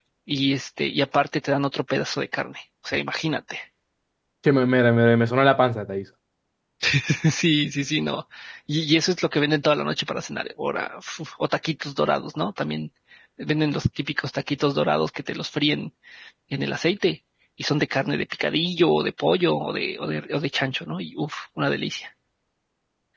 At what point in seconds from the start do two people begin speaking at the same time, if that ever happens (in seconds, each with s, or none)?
none